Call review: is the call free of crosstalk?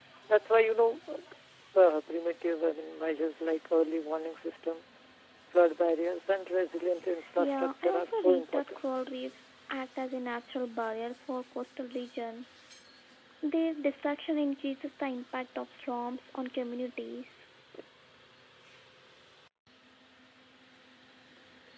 No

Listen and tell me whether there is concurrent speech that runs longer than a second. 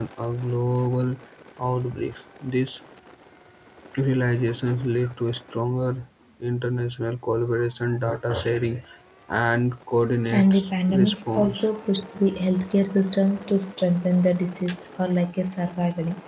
Yes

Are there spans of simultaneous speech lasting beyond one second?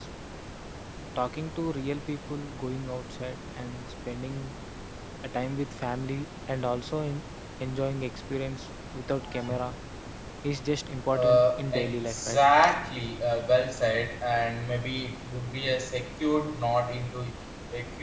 Yes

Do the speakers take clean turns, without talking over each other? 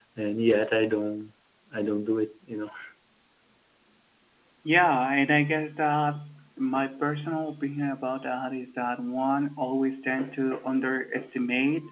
Yes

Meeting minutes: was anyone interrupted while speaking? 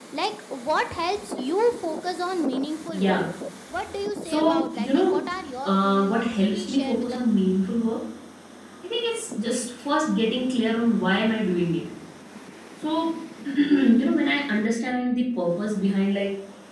Yes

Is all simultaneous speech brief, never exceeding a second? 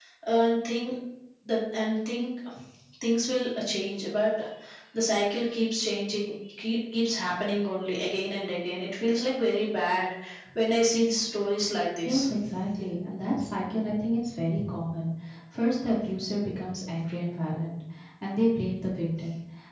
Yes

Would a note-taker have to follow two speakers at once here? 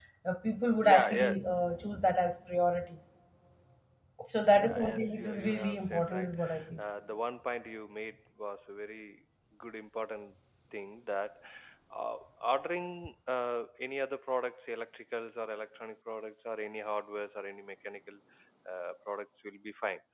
Yes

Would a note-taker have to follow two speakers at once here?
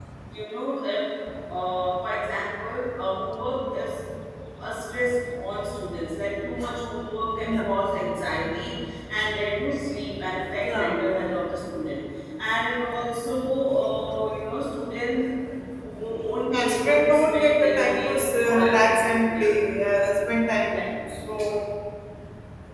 Yes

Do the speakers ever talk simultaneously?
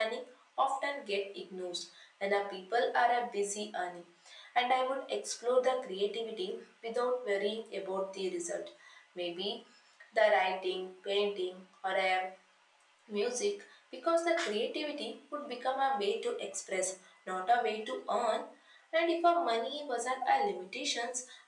No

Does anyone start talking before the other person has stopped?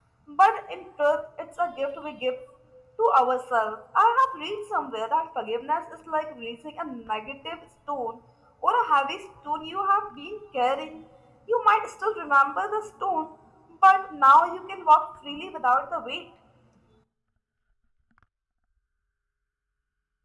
No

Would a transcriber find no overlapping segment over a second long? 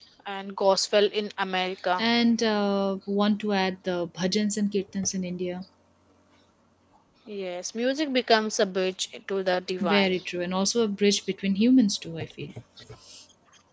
Yes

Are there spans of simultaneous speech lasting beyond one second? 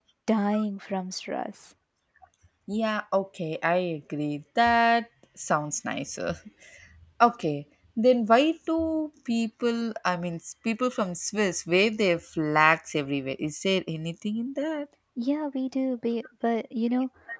No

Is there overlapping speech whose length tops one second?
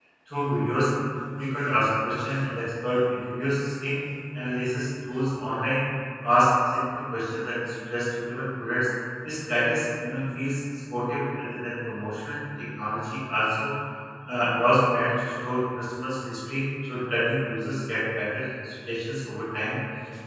No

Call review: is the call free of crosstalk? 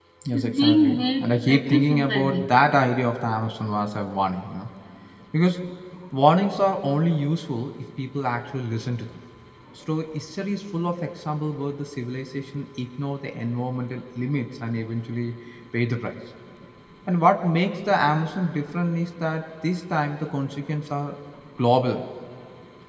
No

